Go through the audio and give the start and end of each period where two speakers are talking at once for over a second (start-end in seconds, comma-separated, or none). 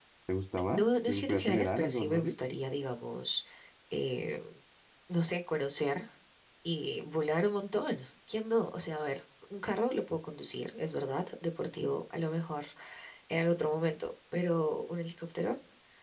0.7-2.3